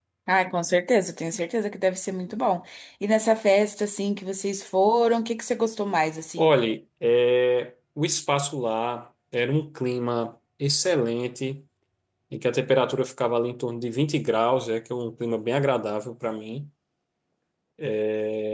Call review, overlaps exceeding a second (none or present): none